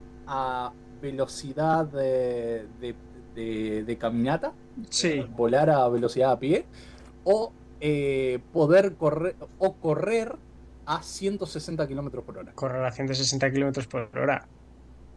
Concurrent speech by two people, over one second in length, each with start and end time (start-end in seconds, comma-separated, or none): none